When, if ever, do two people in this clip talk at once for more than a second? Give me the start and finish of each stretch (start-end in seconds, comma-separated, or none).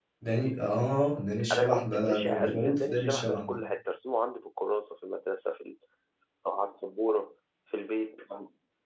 1.5-3.6